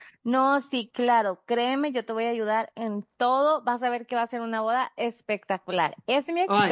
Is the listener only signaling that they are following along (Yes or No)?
Yes